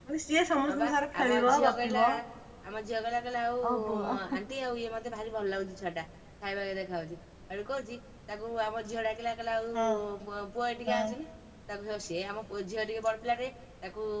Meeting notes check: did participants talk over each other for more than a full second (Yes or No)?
Yes